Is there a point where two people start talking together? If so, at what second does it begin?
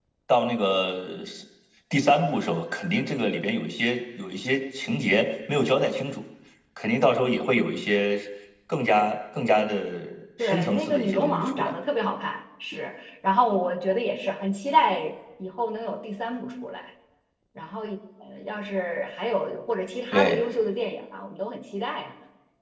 10 s

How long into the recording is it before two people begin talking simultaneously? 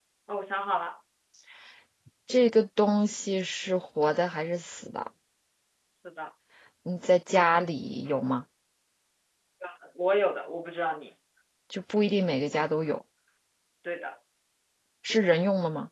none

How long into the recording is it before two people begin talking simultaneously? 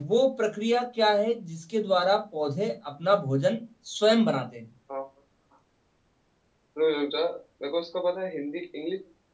none

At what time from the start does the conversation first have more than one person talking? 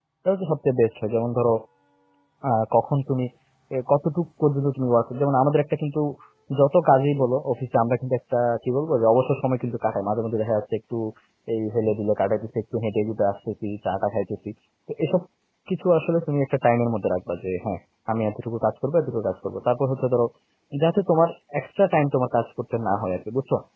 none

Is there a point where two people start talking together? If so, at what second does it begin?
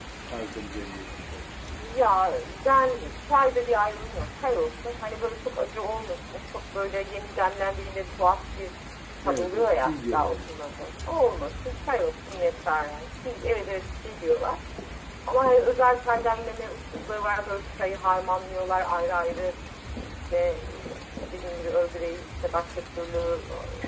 9 s

